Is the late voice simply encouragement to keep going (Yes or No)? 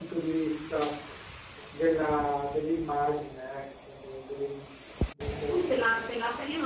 No